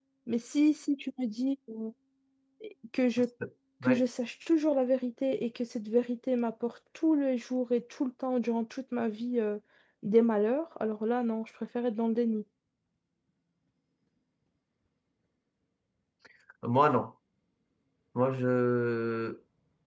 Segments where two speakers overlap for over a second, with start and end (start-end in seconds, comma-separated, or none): none